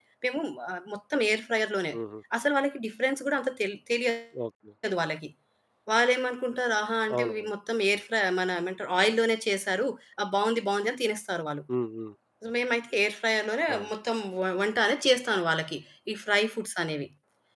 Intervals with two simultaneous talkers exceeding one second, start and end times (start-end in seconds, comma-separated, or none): none